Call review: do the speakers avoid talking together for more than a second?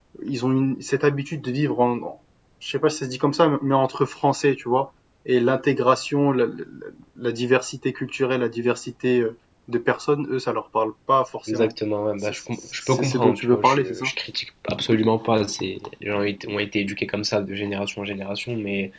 No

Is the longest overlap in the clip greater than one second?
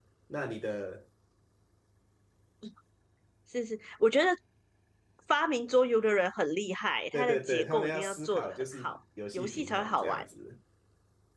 Yes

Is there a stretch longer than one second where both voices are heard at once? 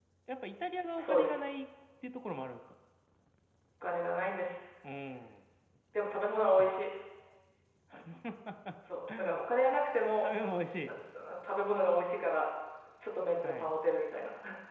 No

